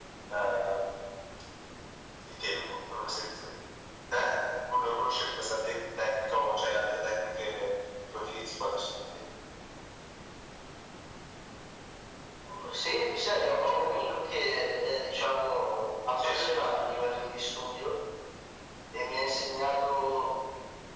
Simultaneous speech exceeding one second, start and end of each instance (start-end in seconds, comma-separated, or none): none